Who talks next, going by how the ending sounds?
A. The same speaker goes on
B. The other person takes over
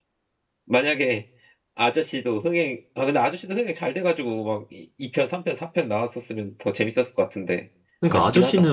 B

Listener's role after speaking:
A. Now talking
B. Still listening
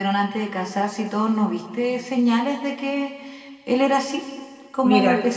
B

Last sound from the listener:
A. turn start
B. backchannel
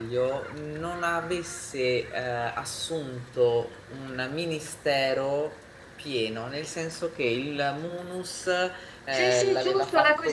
A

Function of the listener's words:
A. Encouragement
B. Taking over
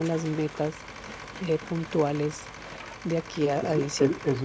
B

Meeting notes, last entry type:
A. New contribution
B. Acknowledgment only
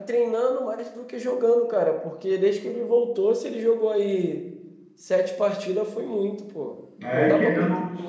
A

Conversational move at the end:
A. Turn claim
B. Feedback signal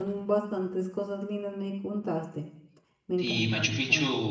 A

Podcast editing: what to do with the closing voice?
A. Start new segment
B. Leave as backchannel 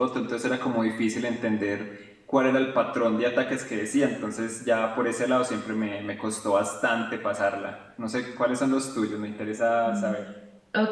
A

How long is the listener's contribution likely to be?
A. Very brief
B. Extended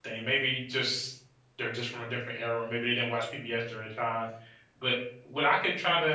A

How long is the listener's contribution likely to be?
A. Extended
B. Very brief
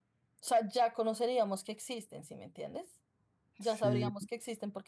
B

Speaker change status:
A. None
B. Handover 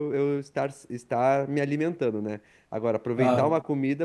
A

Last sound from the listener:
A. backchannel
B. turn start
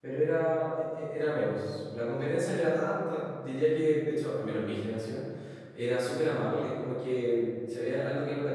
A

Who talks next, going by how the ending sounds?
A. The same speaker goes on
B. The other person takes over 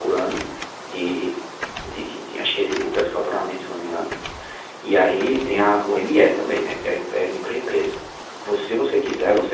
A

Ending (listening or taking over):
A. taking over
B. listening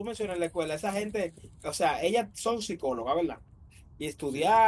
B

